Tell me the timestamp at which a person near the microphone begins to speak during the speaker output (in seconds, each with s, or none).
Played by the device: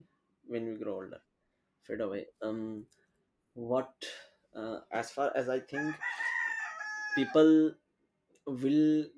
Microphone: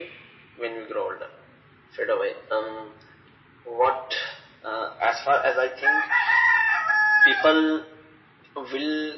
none